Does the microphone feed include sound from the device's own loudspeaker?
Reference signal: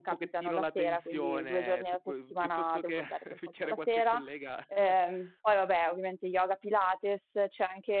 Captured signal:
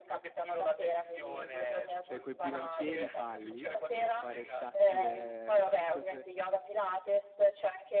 Yes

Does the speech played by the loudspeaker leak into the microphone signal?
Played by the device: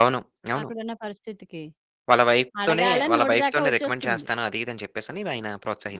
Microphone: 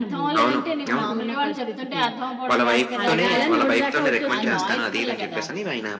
Yes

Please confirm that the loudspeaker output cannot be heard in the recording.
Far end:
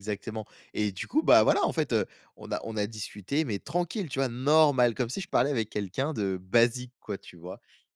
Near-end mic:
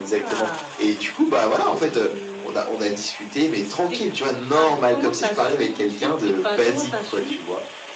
No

